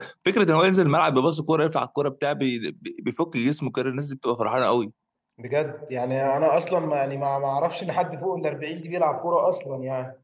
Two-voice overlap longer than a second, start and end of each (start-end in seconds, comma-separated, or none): none